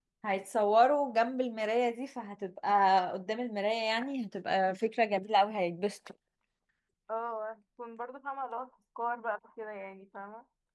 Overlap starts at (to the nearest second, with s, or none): none